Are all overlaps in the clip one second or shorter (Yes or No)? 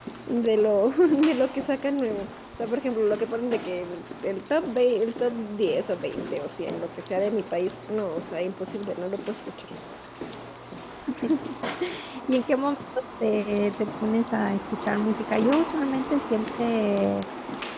Yes